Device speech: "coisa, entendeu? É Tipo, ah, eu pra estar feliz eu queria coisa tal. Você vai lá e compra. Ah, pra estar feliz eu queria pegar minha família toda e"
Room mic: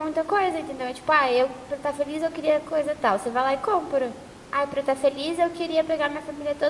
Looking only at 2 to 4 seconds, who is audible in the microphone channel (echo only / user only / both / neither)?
echo only